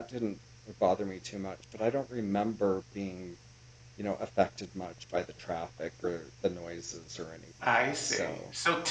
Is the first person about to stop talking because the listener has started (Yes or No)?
Yes